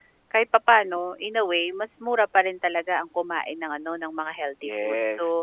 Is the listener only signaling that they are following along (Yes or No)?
No